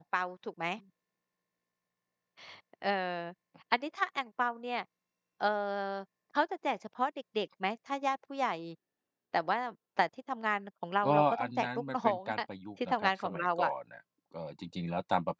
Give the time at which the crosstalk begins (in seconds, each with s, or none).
11.0 s